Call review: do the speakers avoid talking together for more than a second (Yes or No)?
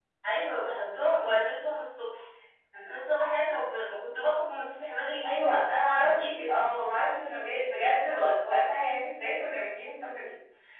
Yes